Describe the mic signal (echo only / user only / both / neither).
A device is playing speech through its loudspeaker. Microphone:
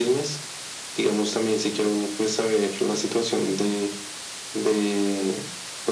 echo only